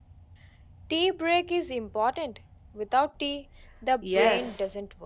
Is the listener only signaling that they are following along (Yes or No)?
No